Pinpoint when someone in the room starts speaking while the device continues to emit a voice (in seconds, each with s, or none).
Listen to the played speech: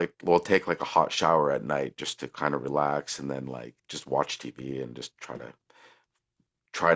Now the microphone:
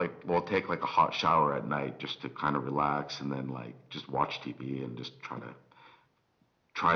none